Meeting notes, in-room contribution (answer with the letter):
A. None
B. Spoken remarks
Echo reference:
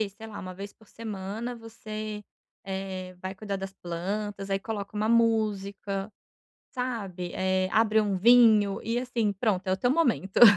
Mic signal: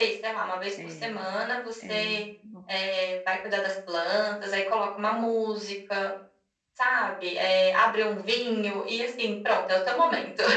B